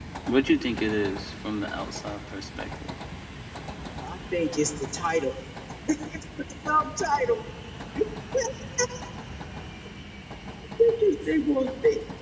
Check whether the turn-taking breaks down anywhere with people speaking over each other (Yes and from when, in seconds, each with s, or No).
No